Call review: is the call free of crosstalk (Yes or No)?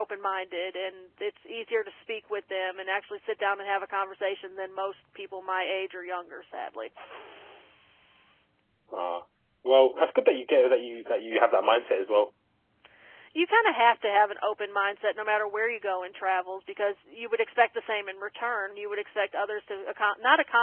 Yes